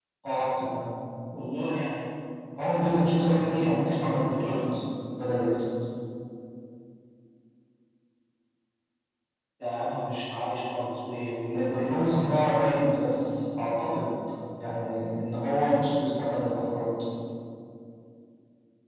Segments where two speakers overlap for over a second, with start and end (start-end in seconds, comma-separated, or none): 2.7-4.7, 11.5-13.0